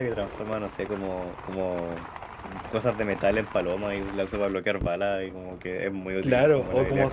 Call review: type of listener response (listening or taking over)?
taking over